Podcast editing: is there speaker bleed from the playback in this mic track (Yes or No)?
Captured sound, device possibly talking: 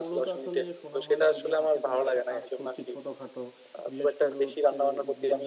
Yes